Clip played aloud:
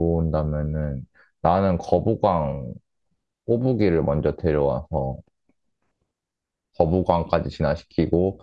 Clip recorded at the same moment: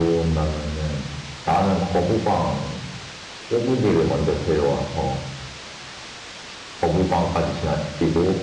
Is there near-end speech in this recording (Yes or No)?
No